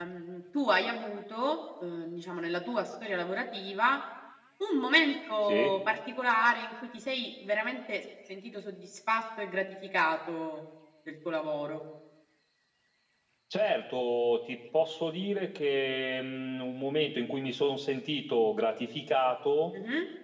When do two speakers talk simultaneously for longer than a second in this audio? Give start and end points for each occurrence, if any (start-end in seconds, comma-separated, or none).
none